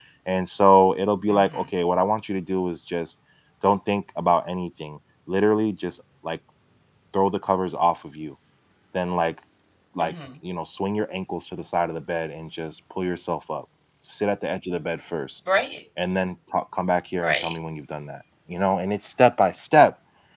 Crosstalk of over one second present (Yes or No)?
No